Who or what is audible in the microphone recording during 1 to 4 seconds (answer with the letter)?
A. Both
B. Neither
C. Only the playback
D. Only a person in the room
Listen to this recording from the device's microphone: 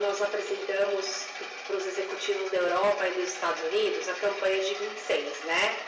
C